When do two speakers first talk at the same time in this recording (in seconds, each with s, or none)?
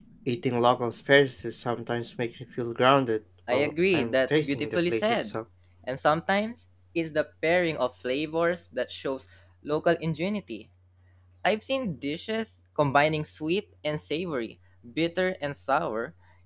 3.5 s